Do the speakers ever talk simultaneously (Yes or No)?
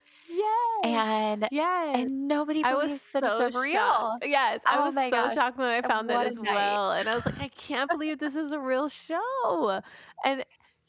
Yes